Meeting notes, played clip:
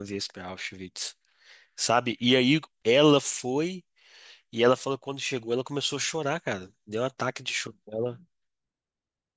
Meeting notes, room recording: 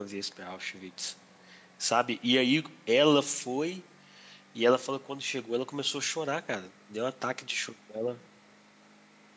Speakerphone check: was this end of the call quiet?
Yes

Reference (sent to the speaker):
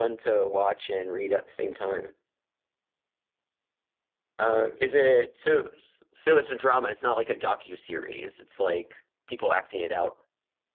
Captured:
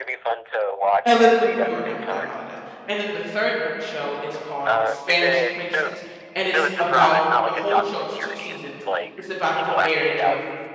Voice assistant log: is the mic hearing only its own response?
No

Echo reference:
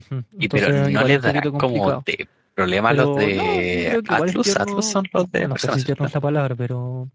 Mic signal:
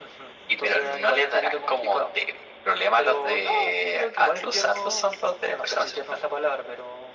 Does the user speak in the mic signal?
No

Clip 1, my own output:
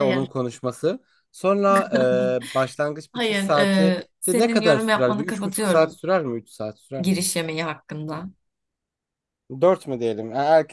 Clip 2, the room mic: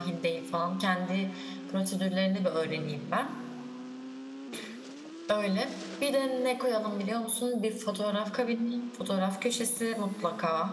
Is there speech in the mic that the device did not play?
Yes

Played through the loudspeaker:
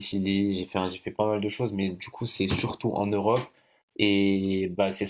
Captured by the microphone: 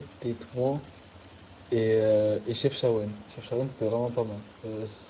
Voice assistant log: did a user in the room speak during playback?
Yes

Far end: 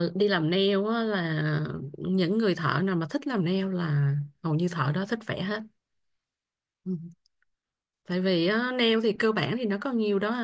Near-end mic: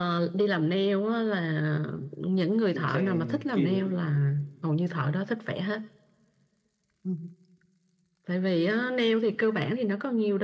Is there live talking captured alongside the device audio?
Yes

